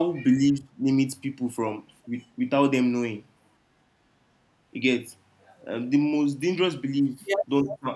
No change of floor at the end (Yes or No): Yes